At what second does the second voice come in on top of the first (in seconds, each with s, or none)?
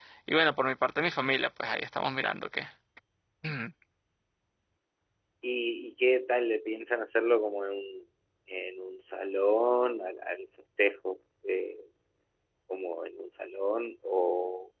none